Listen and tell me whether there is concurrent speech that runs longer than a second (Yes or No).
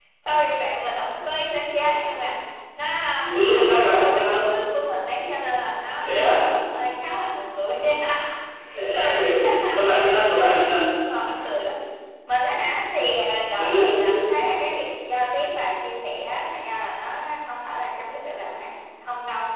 Yes